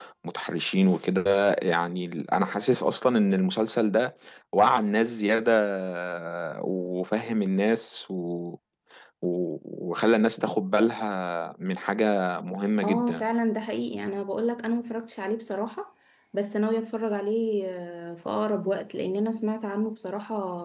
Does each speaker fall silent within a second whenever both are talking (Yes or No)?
Yes